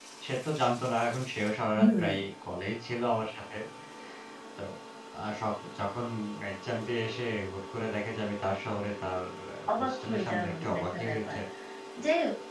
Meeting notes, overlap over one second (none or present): present